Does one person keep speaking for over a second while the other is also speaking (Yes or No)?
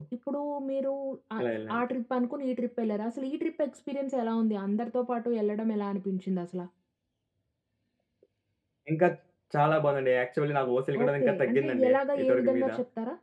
Yes